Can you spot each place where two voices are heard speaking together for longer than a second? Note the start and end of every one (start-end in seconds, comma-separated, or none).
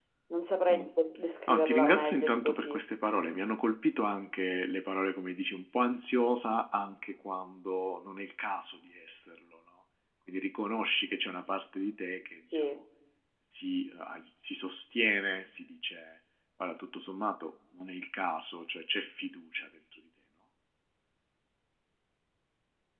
1.5-2.8